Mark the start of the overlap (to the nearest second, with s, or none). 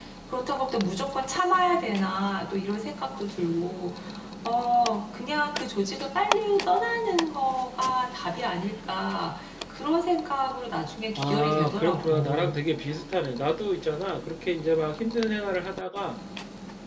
11 s